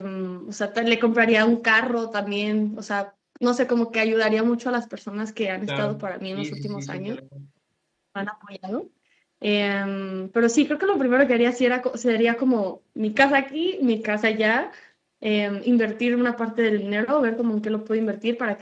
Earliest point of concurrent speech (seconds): 5.7 s

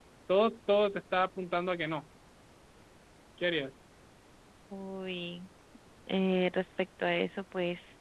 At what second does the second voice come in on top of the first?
none

